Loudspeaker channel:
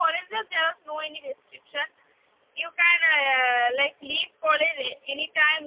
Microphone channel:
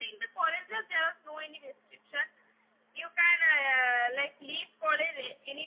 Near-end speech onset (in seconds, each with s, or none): none